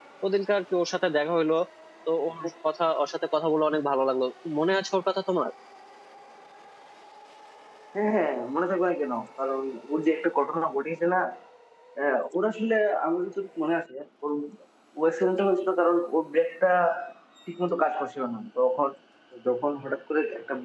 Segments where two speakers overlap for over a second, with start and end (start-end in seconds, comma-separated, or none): none